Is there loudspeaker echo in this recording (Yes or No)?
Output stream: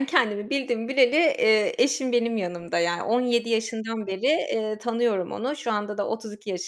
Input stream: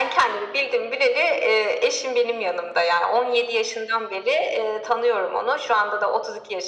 Yes